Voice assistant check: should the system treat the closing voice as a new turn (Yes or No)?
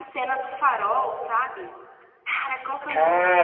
Yes